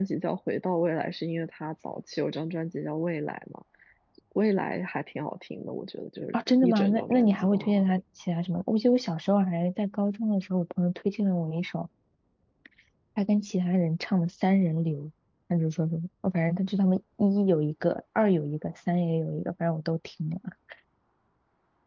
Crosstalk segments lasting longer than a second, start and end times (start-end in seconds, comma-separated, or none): 6.3-7.8